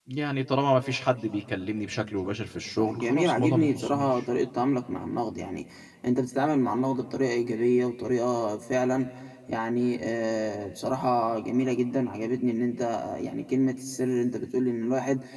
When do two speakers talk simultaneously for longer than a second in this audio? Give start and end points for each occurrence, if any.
2.8-4.1

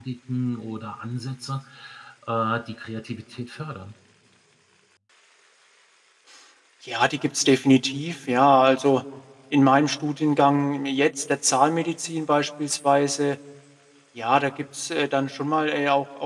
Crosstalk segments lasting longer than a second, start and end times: none

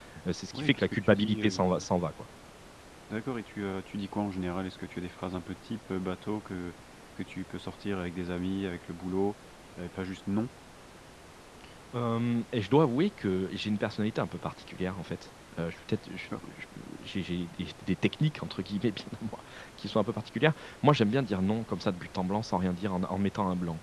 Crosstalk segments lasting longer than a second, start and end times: 0.5-1.8

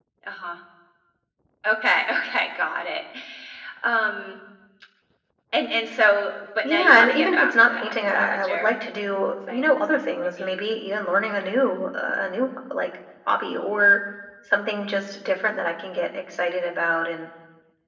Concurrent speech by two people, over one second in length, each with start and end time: 6.6-8.7

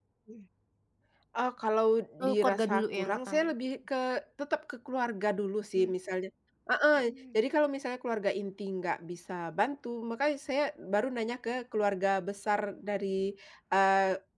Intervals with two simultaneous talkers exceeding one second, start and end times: 2.3-3.5

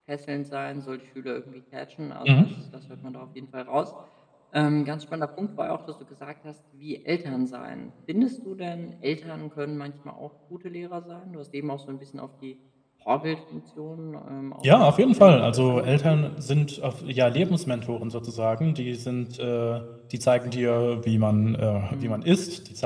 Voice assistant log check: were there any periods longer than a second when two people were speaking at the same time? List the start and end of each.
14.6-16.2

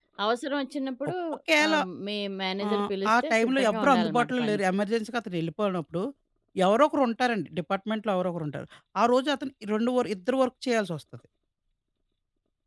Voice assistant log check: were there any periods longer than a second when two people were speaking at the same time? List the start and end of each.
2.6-4.6

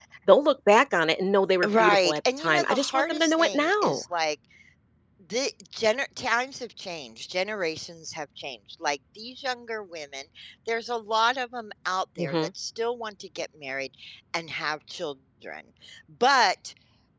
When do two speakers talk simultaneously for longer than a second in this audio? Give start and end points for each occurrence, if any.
1.6-4.0

